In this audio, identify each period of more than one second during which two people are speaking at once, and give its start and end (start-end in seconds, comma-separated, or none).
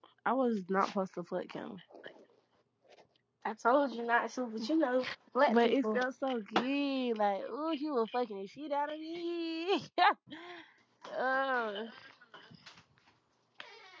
none